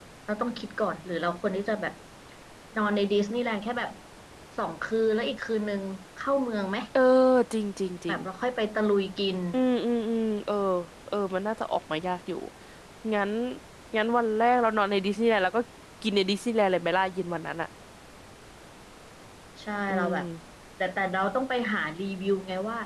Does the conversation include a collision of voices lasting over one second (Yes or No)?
No